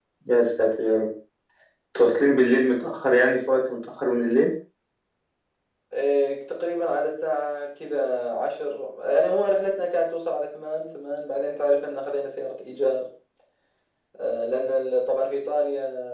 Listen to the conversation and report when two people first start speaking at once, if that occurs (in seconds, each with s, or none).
none